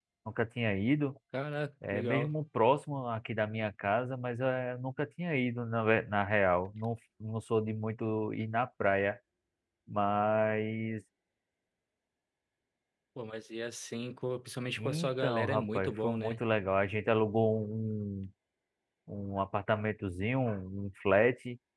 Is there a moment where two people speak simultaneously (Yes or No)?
Yes